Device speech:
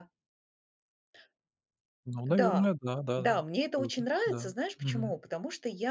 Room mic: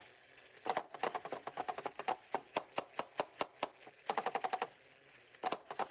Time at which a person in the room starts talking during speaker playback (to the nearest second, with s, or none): none